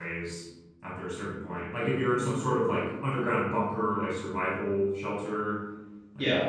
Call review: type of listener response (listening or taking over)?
taking over